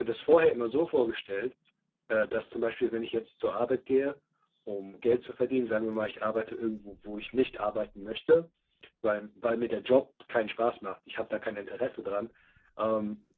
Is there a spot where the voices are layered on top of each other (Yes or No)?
No